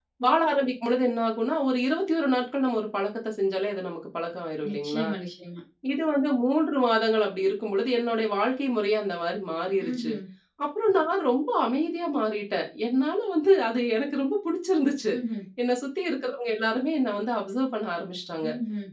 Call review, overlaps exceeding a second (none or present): none